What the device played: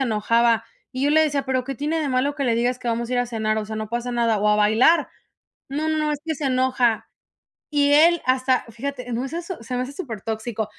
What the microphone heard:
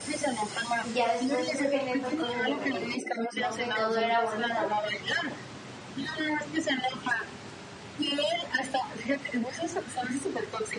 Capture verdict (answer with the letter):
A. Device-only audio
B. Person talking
B